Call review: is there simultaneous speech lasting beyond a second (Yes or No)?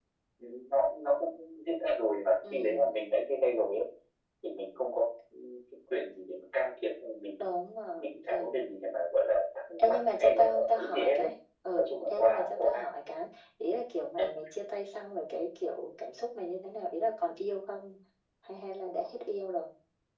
Yes